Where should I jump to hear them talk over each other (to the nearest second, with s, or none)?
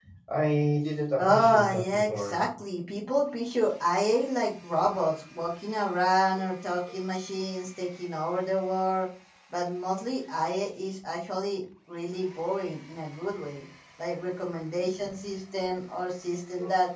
1 s